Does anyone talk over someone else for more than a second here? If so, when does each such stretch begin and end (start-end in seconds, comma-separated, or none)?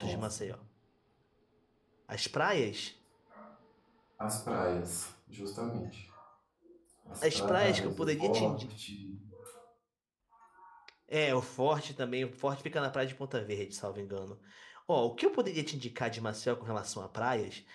7.2-8.7